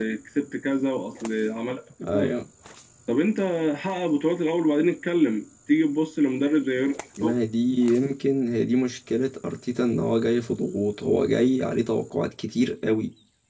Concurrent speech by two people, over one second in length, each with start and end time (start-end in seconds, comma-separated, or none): none